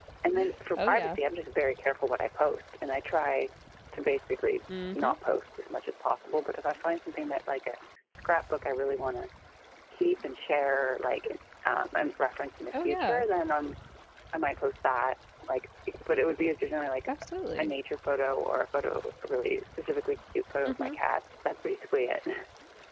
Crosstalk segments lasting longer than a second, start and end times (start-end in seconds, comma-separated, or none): none